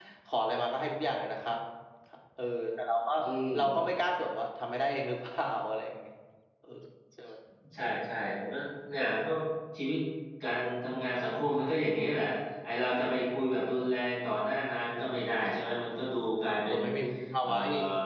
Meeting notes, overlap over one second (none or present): none